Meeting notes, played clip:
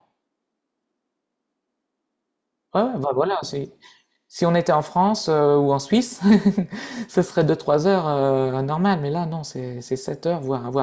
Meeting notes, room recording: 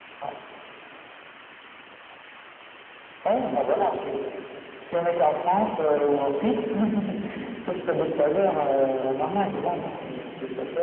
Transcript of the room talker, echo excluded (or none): none